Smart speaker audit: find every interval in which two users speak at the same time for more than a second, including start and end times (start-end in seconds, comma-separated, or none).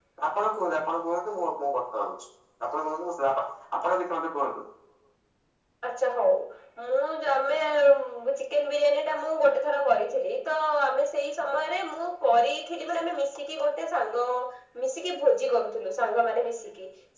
none